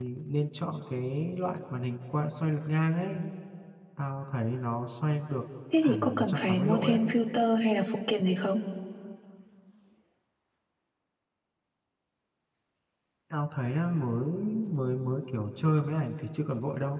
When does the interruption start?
5.7 s

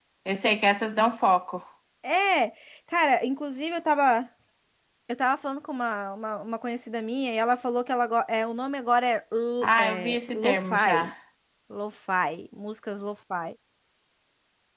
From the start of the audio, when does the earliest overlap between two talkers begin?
9.6 s

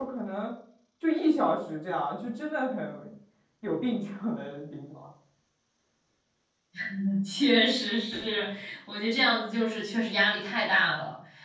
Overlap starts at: none

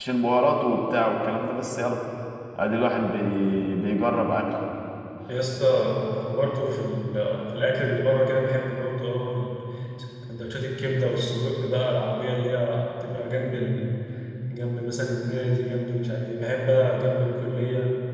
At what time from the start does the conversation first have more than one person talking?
none

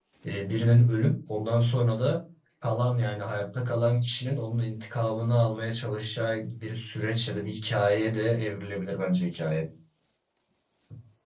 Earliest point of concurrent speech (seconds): none

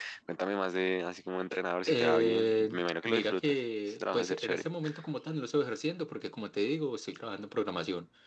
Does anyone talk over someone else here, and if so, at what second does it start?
1.9 s

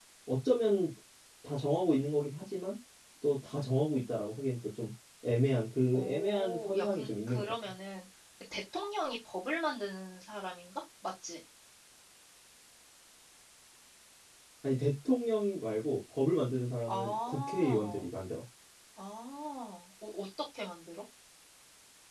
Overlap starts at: 5.9 s

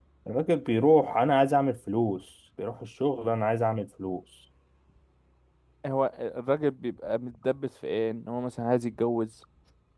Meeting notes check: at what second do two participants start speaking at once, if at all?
none

